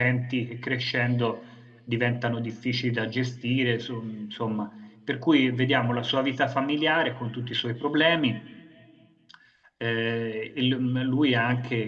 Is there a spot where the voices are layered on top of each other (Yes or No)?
No